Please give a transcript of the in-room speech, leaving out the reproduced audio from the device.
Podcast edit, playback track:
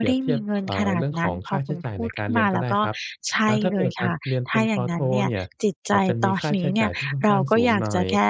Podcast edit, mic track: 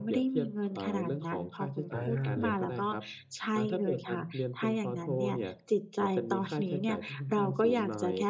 อา

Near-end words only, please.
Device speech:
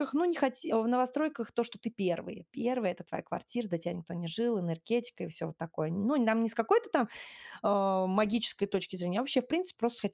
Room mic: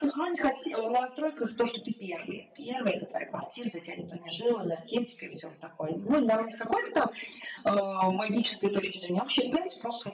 none

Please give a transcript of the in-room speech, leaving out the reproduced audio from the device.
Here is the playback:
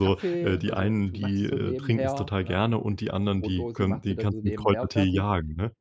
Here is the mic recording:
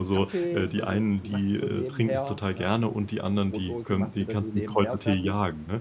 none

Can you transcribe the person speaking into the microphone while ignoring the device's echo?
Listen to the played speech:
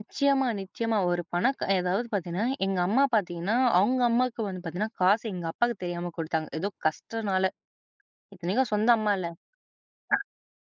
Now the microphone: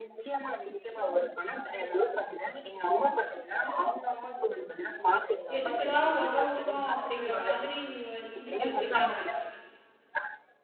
எதுக்குடா உதவணும் அப்டிங்கிற மாதிரி நீங்க சிந்திக்க வச்சிட்டாங்க.

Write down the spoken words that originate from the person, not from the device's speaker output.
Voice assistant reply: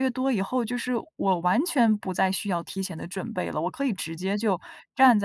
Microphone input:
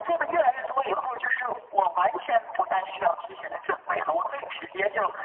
none

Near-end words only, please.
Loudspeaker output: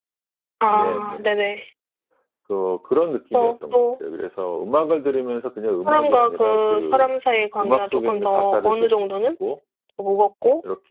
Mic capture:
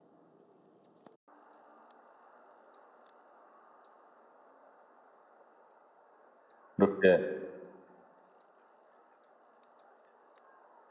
이렇게

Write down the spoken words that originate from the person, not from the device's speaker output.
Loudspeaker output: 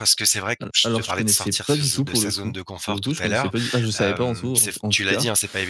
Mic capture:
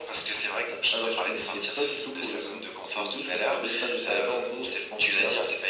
none

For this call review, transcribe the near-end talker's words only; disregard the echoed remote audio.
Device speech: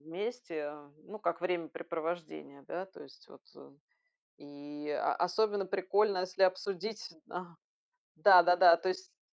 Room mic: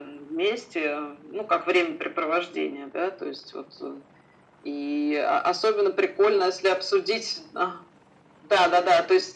none

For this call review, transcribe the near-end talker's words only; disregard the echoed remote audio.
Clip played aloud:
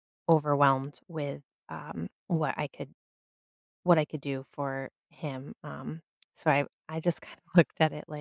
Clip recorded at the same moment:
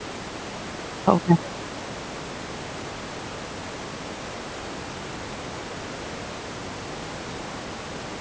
Oh, really?

